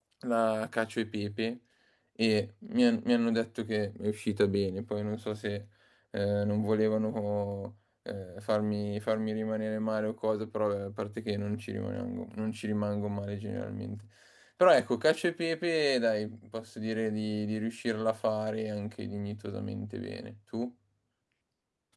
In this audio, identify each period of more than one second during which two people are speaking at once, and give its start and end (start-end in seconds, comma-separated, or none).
none